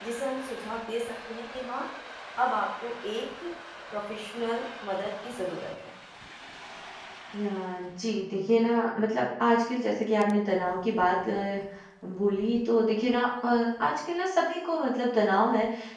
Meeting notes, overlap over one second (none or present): none